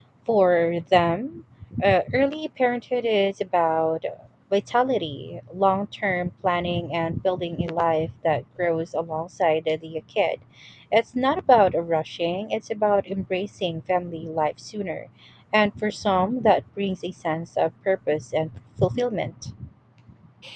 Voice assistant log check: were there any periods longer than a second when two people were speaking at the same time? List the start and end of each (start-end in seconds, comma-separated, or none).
none